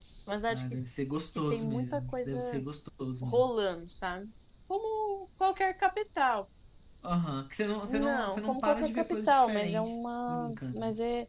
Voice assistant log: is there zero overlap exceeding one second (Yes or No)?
No